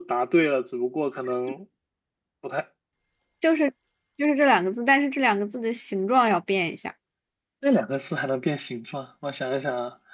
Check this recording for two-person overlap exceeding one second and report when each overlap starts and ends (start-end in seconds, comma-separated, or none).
none